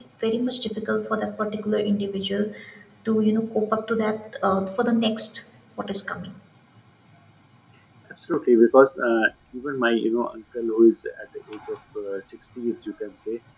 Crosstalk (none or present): none